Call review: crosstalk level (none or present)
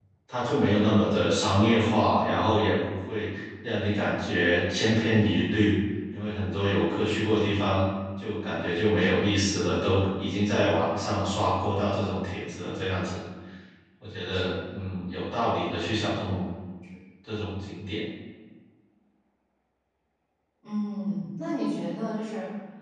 none